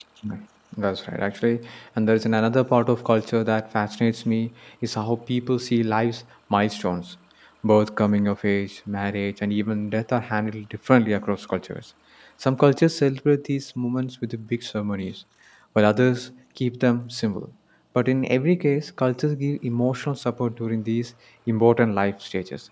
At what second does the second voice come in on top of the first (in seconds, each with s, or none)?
none